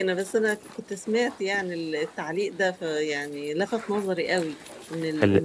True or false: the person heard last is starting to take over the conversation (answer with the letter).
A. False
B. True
A